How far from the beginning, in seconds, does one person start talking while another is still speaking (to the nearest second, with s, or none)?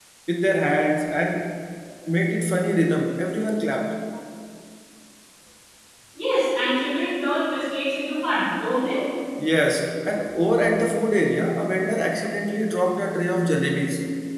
none